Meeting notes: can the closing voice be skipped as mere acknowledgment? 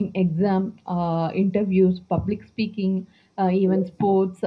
Yes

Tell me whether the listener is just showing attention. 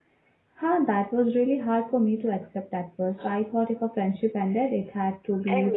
No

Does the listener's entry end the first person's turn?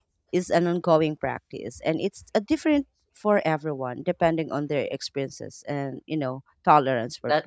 Yes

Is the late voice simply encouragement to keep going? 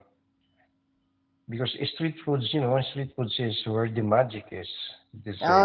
No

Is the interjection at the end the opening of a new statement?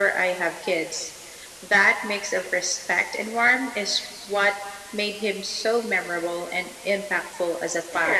Yes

